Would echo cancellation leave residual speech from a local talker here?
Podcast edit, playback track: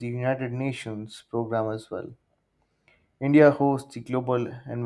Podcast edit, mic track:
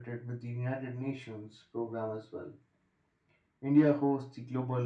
No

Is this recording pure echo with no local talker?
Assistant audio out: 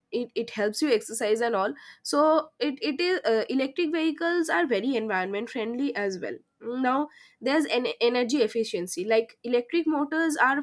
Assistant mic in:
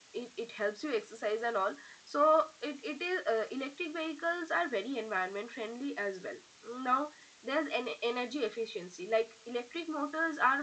Yes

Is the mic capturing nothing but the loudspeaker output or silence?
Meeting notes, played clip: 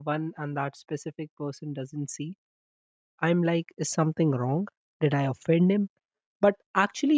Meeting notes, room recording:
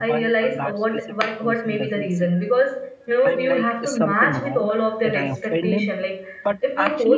No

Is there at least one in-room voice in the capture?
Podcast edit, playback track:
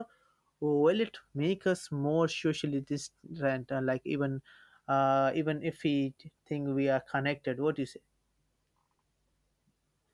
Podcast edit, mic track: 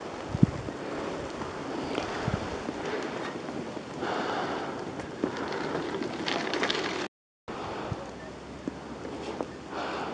No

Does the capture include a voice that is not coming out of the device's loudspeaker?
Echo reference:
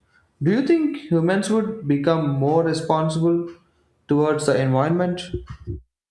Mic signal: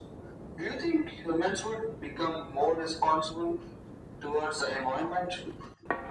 No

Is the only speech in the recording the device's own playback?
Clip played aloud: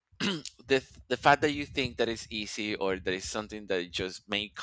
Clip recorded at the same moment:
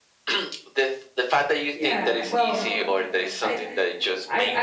No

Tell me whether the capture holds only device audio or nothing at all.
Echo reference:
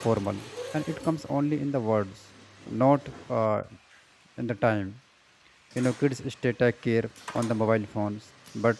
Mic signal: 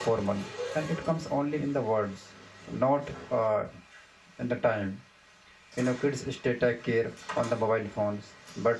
Yes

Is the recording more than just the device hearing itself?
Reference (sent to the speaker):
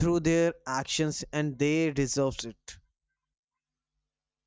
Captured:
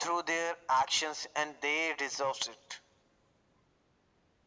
No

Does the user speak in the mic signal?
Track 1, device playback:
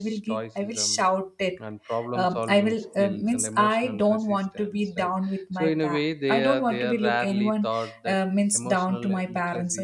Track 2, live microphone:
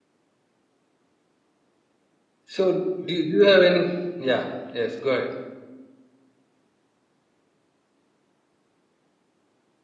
Yes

